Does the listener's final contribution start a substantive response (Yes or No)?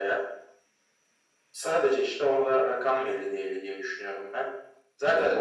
No